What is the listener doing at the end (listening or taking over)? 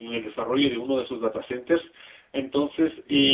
listening